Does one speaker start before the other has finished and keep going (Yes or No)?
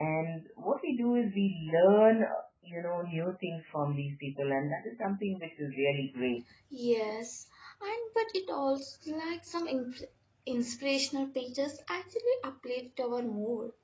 No